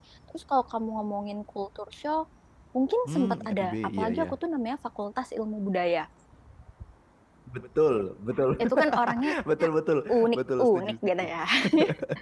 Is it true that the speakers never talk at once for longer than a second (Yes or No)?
No